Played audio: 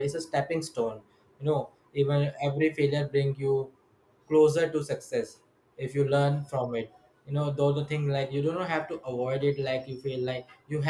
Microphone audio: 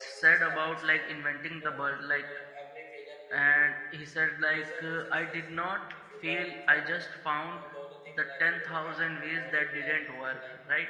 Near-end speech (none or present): present